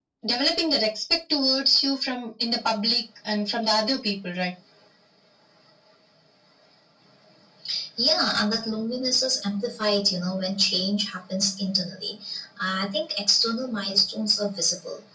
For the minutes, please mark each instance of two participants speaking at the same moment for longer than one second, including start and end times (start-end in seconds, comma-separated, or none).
none